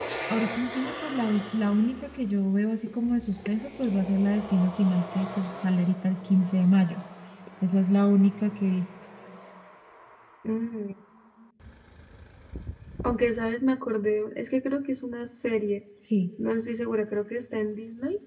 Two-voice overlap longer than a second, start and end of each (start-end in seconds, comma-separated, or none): none